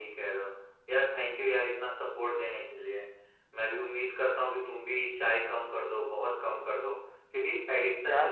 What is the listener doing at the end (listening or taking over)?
listening